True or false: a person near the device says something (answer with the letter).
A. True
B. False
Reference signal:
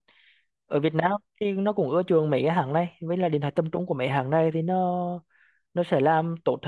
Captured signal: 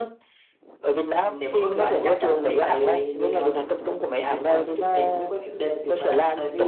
A